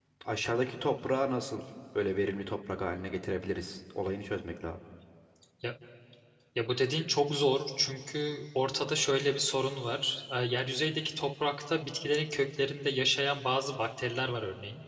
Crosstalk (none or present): none